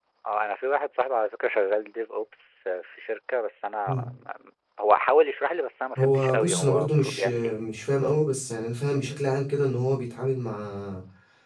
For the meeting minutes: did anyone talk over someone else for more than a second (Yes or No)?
Yes